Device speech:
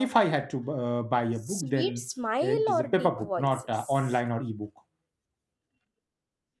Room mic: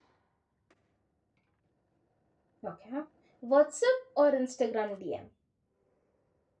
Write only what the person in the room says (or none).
Okay. WhatsApp or Instagram DM?